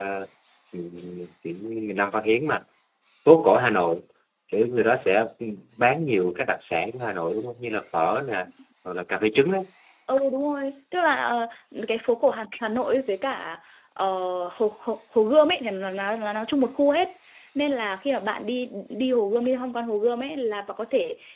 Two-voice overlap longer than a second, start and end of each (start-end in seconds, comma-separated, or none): none